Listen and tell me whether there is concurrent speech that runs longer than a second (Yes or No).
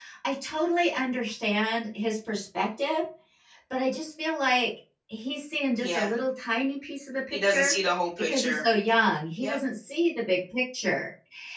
No